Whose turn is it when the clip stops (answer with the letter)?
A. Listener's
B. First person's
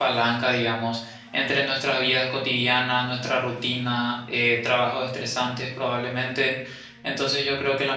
B